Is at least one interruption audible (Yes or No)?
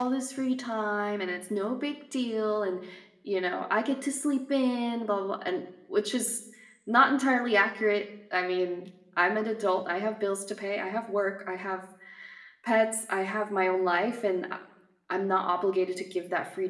No